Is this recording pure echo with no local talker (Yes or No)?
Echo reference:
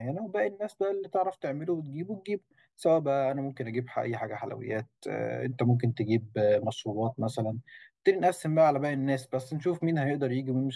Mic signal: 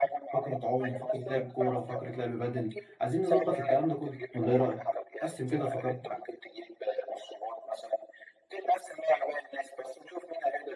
No